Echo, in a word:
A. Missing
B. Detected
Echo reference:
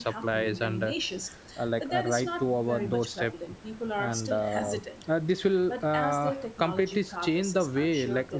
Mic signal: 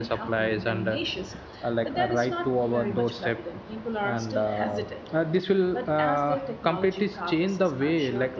B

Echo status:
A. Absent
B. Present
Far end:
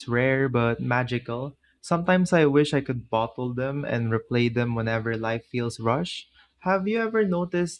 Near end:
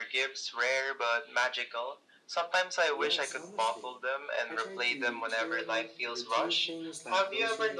B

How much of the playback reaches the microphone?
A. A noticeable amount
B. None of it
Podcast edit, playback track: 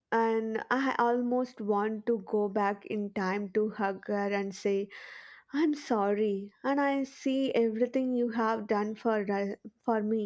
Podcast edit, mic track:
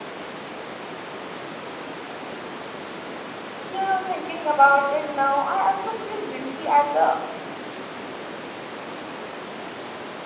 B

